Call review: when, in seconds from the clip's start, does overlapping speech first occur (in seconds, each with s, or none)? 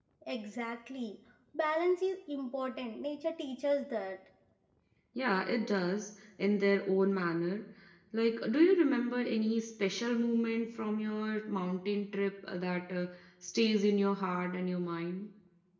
none